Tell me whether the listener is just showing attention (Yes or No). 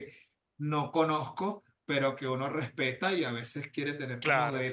Yes